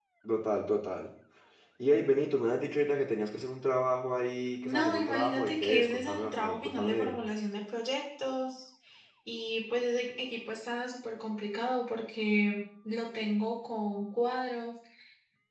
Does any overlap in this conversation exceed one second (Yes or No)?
Yes